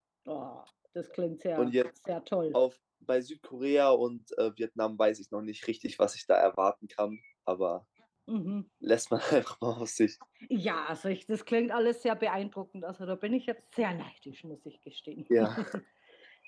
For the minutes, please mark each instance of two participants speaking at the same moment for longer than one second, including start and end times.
none

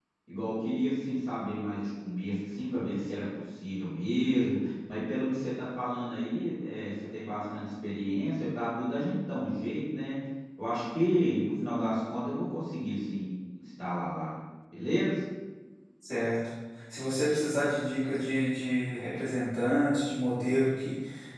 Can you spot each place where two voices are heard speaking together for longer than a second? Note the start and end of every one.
none

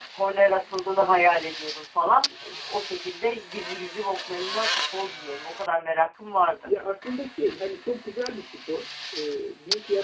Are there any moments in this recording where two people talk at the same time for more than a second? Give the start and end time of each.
none

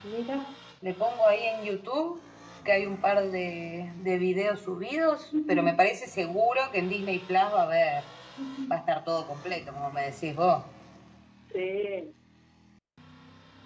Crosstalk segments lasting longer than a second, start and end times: none

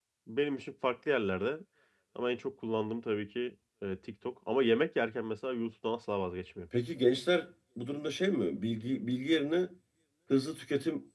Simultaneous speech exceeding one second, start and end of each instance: none

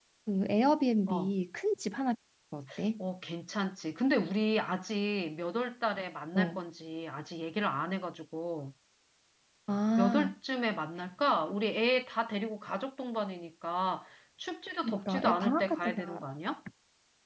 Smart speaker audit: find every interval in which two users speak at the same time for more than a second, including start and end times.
14.8-16.3

